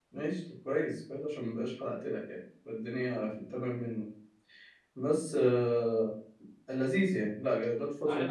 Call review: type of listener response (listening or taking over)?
taking over